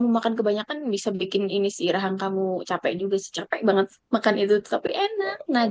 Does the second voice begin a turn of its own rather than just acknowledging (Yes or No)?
Yes